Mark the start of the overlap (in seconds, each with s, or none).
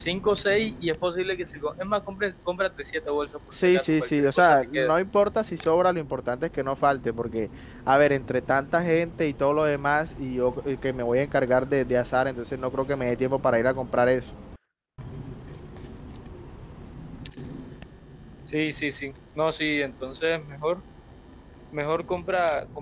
3.5 s